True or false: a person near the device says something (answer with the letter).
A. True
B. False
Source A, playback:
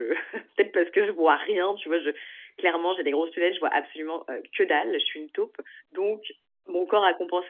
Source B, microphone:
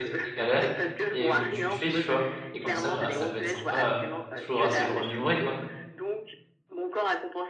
A